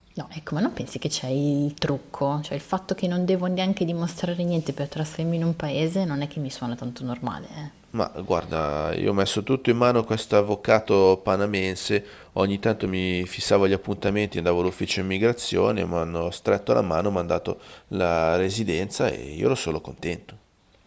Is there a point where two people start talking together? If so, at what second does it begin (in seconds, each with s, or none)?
none